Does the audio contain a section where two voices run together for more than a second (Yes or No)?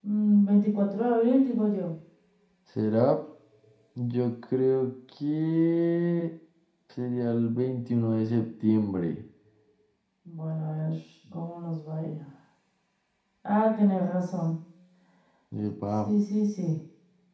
No